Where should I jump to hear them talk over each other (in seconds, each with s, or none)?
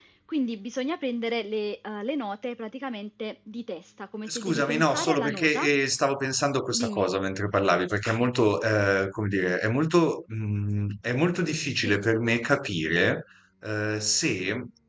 4.3 s